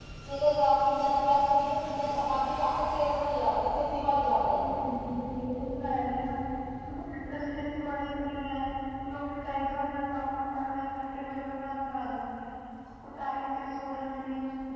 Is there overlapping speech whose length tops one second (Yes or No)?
No